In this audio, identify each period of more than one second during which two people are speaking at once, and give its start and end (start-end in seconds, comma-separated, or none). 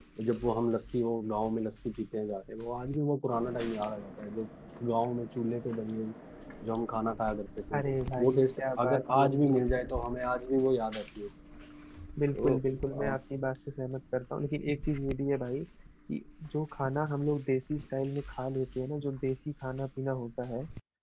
8.2-10.0